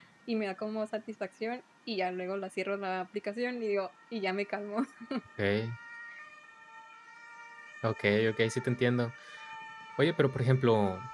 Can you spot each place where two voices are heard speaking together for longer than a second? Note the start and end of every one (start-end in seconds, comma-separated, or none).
none